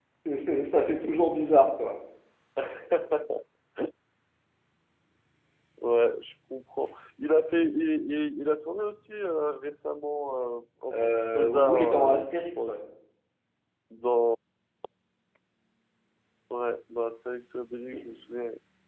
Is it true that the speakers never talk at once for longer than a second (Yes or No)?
No